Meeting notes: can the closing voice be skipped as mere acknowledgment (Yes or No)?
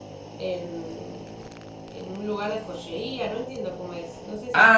No